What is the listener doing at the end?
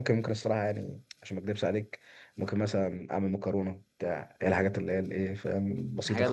listening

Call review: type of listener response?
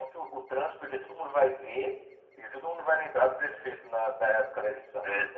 taking over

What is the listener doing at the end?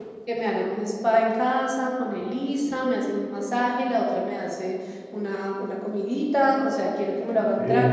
listening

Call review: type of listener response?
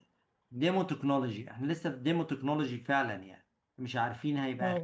listening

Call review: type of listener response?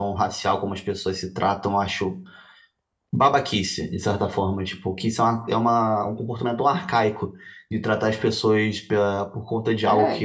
listening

